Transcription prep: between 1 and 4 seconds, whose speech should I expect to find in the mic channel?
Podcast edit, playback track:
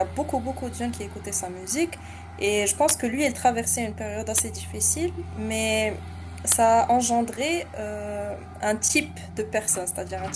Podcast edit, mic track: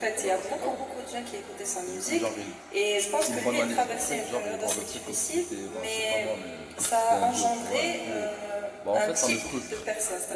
both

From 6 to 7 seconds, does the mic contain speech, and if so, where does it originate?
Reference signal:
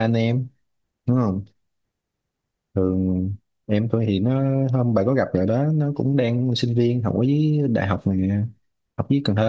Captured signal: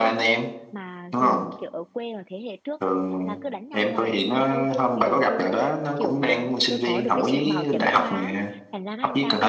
both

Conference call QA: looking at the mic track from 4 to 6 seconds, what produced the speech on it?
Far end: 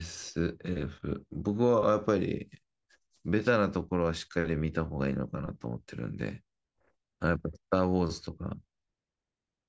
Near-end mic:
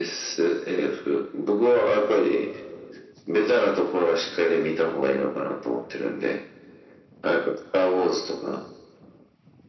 echo only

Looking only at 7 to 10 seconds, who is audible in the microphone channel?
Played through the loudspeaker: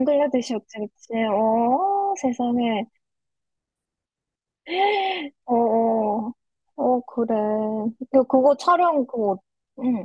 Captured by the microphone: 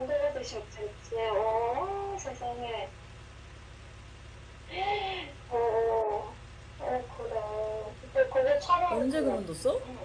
both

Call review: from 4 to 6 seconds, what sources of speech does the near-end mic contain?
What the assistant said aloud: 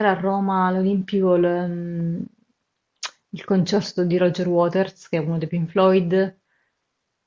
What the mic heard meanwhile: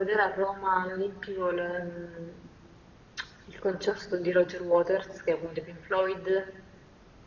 echo only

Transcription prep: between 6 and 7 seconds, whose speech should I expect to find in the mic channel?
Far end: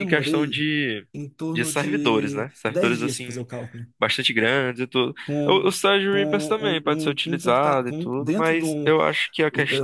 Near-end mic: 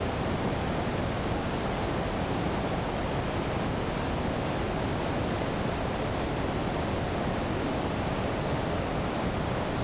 neither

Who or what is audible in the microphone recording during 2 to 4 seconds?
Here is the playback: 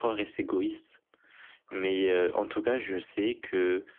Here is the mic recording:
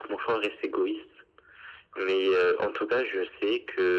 echo only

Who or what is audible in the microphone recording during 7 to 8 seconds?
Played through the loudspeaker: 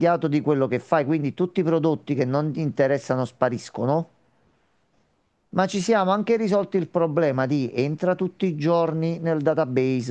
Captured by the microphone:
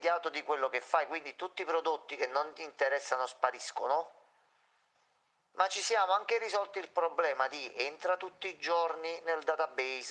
echo only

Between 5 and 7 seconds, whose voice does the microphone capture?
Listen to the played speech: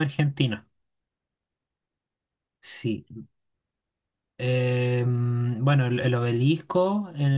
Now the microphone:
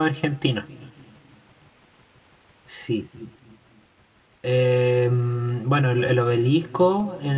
echo only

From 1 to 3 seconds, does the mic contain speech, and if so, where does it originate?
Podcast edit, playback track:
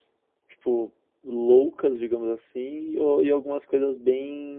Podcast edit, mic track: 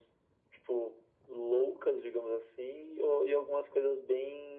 echo only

